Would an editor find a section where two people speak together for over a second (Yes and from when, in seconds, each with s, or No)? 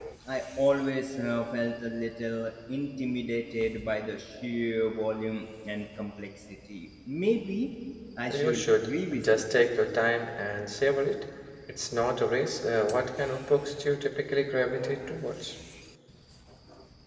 Yes, from 8.3 s